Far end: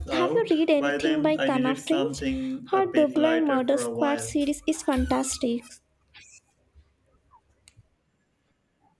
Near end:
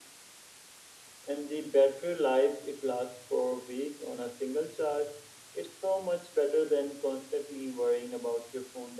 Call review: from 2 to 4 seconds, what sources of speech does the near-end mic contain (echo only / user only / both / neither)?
user only